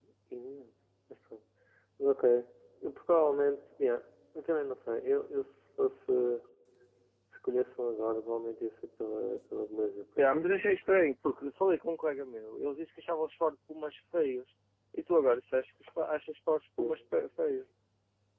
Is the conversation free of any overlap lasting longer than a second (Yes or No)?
Yes